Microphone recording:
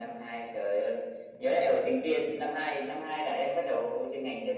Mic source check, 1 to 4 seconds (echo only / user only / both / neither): echo only